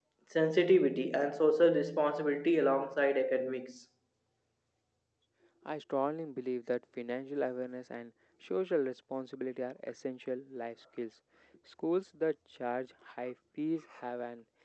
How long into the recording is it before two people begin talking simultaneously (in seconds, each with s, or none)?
none